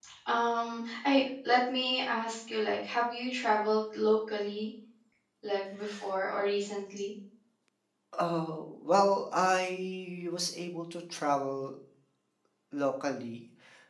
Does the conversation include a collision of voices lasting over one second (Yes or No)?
No